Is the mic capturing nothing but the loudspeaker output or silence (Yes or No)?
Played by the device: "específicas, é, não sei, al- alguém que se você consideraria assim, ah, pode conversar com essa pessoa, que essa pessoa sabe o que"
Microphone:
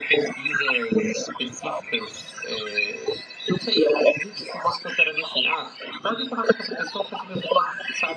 Yes